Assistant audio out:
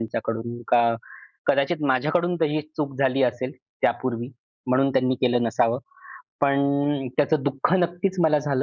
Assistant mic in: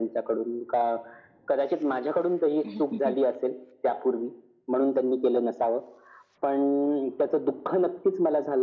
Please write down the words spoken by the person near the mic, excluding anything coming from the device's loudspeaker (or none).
हं,